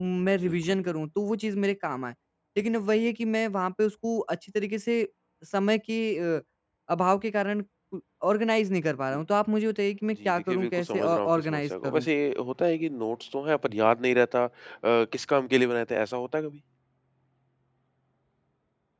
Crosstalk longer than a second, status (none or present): present